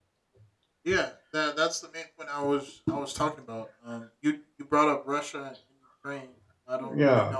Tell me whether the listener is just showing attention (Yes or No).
Yes